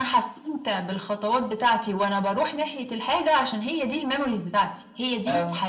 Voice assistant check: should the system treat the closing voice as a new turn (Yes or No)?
No